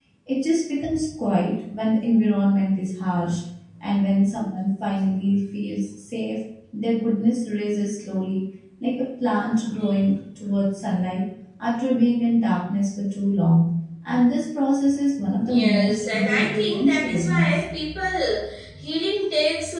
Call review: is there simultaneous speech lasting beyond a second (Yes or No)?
Yes